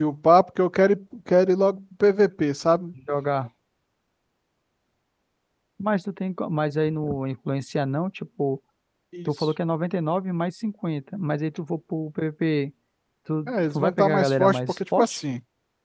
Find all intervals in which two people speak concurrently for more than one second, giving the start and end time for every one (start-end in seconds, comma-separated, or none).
13.5-15.2